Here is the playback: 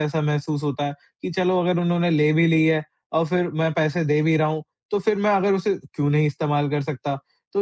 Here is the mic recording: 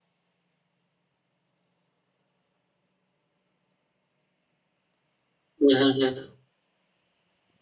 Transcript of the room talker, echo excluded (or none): हुँ, हुँ, हुँ, हुँ।